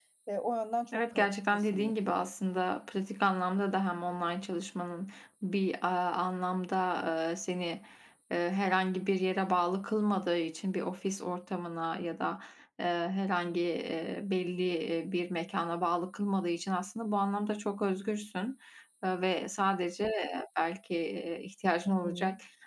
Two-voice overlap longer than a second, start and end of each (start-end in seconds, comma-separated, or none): 0.9-2.2